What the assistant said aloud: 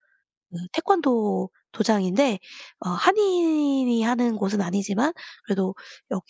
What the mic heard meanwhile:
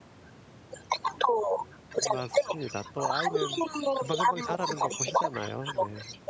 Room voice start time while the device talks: 2 s

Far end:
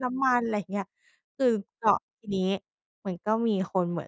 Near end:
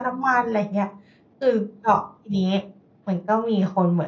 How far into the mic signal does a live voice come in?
none

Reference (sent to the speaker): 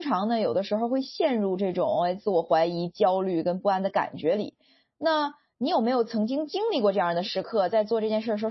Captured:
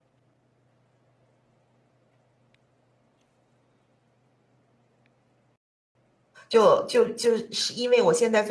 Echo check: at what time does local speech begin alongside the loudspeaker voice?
6 s

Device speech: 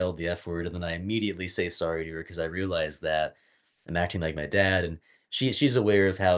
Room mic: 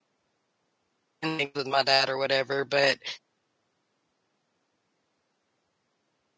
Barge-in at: 1 s

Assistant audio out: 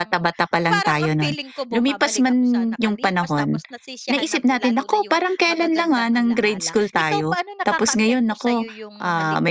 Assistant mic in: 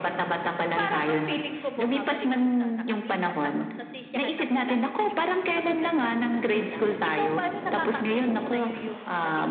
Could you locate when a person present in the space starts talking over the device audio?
none

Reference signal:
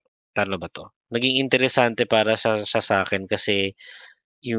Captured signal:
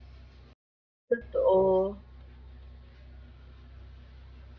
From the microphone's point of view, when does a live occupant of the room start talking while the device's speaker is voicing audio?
1 s

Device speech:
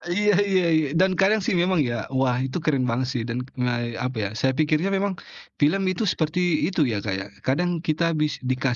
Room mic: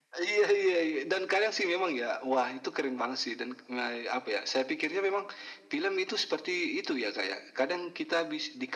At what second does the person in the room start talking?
none

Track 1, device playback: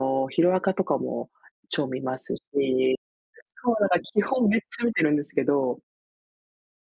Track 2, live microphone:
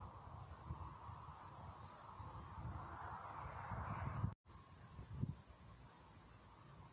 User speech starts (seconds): none

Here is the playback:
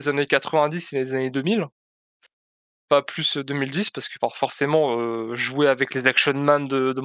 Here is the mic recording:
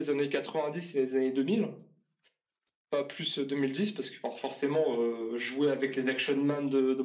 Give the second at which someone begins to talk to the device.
none

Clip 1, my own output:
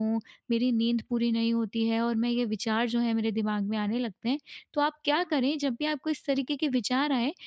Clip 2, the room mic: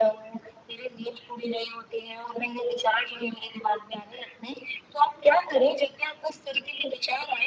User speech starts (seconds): none

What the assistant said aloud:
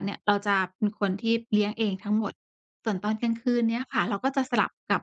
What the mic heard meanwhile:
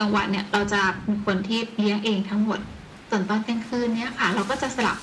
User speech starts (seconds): none

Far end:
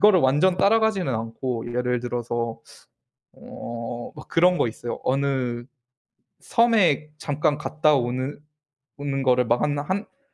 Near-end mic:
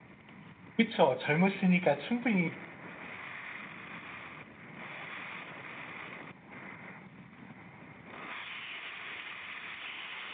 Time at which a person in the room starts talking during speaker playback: 1 s

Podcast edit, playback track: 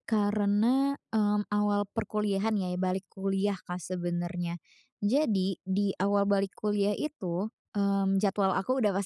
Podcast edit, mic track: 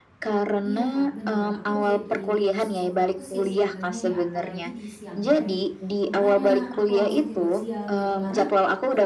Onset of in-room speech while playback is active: 1 s

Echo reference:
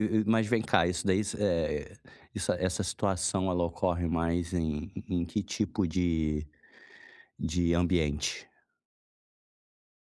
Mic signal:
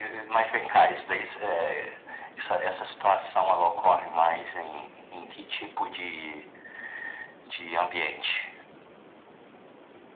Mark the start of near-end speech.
none

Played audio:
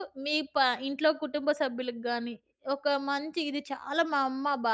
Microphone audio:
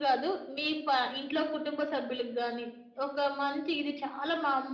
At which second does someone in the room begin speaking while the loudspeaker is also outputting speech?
none

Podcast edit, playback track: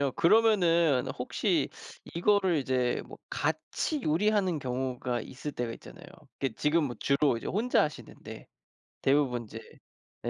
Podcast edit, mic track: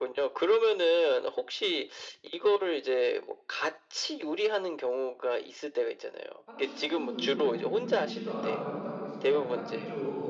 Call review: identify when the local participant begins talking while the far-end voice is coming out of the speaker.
6 s

